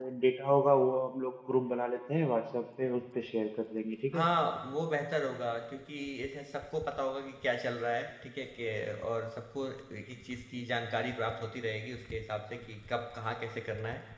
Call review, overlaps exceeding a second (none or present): none